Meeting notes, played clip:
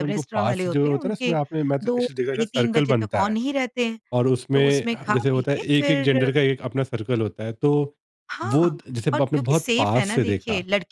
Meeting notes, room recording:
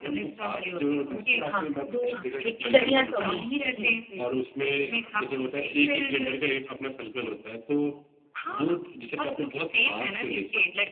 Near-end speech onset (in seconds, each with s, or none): 1.4 s